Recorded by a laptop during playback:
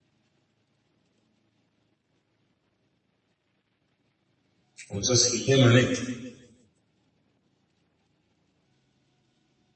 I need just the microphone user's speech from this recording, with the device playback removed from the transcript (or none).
Or just him on it.